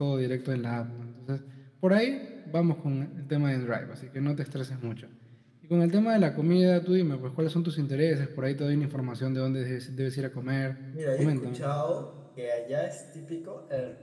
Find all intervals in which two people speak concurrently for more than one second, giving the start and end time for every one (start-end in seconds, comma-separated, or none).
none